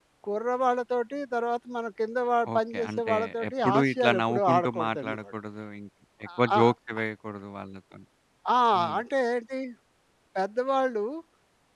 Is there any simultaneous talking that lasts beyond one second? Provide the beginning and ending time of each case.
2.6-5.2

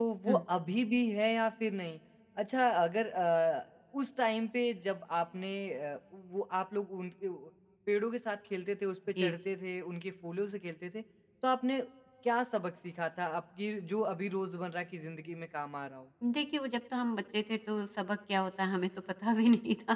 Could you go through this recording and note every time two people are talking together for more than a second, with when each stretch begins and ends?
none

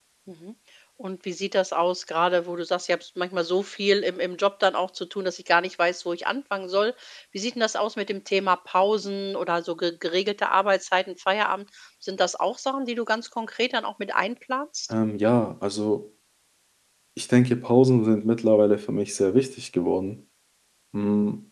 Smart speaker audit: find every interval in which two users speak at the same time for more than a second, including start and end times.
none

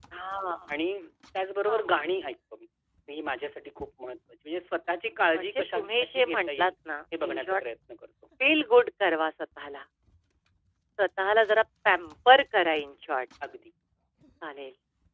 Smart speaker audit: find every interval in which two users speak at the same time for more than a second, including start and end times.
5.3-6.7

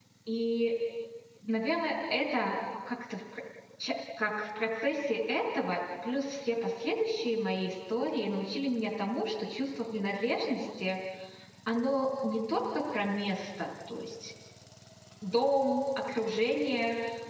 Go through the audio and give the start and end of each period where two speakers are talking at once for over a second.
none

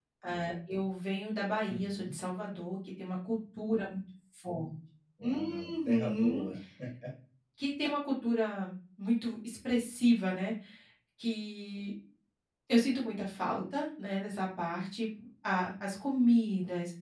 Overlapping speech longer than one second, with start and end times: 5.2-6.5

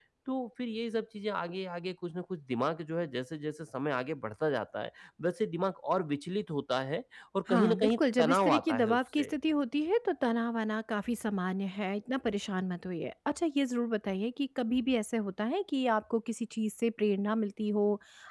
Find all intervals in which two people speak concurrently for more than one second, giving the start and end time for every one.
7.5-9.3

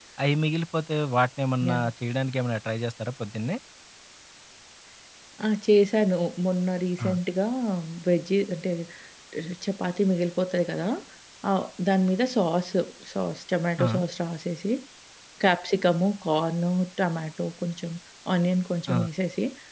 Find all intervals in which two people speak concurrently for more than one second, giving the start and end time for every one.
none

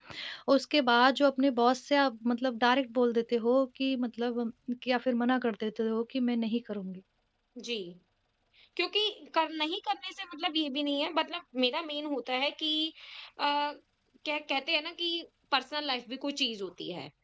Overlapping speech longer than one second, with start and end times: none

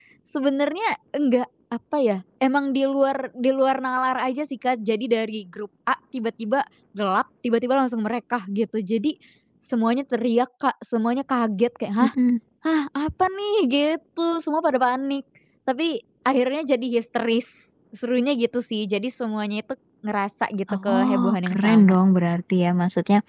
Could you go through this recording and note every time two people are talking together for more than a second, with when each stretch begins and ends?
20.7-21.9

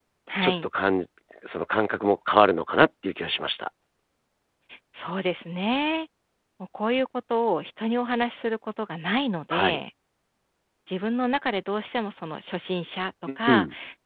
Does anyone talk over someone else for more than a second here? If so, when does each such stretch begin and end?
none

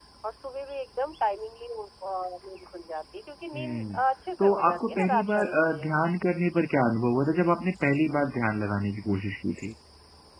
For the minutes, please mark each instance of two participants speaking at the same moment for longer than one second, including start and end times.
4.4-5.9

